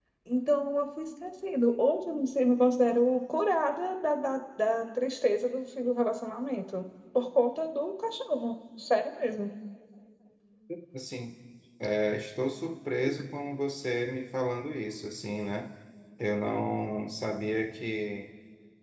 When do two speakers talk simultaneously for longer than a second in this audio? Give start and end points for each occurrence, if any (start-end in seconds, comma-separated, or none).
none